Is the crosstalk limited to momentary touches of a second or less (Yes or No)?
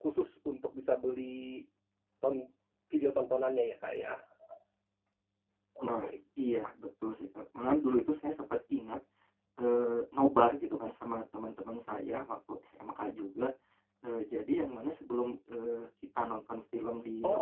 Yes